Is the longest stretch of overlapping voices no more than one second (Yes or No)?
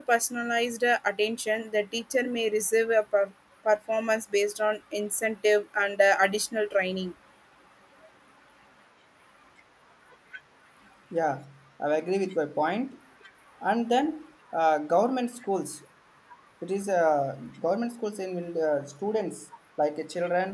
Yes